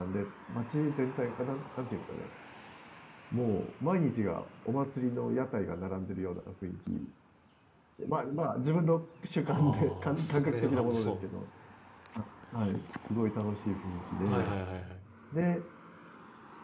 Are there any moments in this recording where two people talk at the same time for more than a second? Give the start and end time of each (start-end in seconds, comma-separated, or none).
9.5-11.2